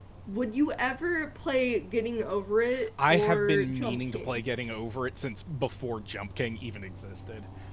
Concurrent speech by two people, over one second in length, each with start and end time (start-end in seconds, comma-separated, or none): 3.1-4.4